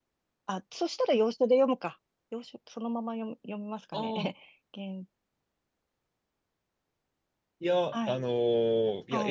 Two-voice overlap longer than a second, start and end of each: none

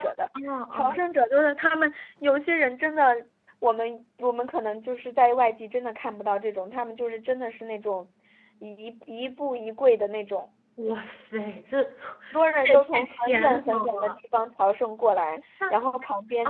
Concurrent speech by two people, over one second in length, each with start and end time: 12.3-14.1

